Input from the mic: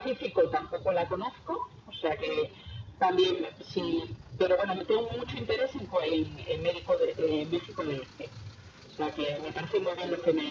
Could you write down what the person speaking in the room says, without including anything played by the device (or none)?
none